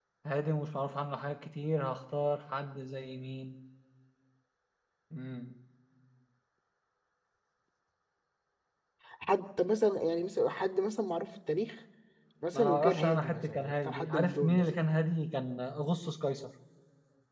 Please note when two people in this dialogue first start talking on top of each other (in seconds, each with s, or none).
12.5 s